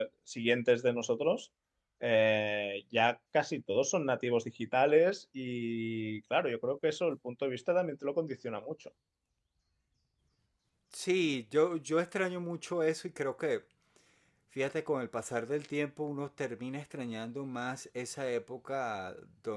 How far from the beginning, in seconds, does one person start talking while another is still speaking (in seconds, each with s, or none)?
none